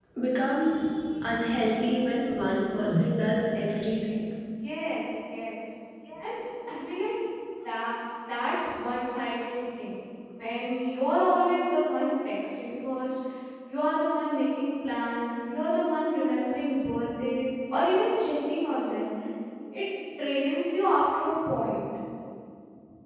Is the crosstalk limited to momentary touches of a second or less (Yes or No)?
Yes